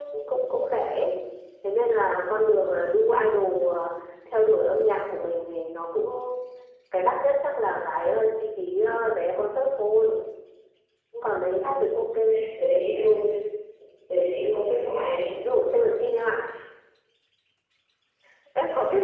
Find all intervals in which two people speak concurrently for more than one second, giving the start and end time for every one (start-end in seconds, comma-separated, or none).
none